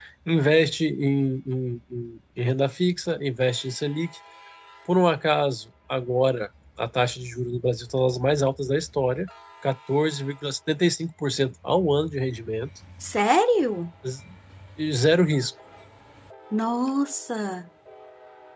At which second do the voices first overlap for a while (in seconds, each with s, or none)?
none